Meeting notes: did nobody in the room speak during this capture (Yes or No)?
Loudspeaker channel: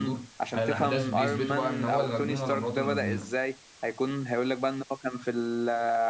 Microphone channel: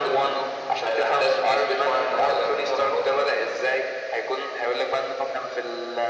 Yes